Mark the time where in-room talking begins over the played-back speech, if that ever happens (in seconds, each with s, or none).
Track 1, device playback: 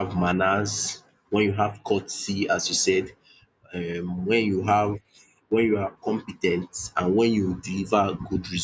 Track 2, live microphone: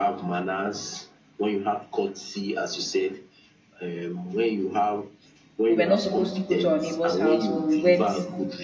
5.6 s